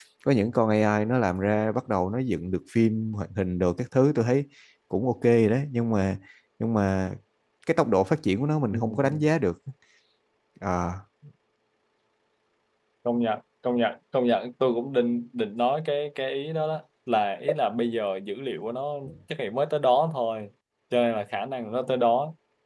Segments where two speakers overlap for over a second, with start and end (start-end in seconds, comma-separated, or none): none